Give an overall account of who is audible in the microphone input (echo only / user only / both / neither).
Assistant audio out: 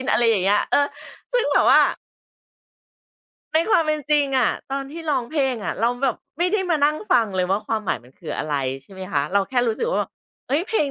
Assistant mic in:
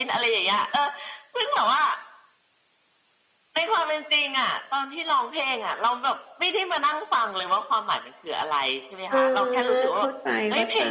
both